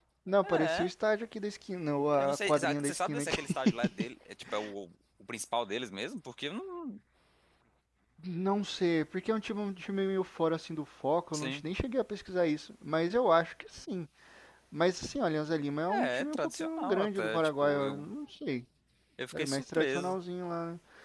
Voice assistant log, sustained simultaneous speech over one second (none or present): present